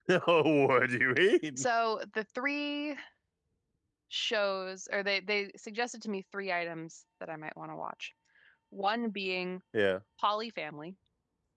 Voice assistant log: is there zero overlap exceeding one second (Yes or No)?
Yes